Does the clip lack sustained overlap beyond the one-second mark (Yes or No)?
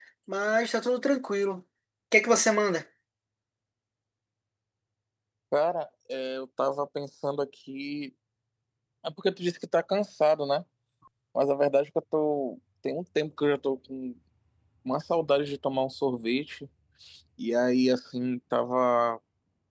Yes